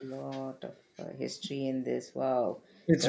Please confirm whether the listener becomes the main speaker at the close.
No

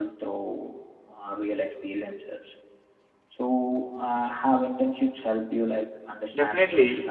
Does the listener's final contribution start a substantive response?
Yes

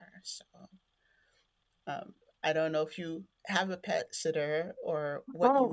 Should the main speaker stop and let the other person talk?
Yes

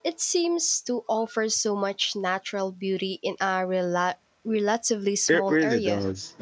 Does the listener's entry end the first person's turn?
Yes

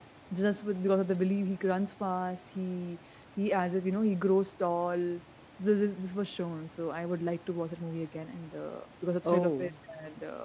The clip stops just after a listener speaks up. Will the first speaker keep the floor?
Yes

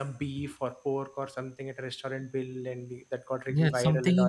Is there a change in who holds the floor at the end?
Yes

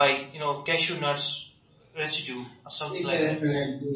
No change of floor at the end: No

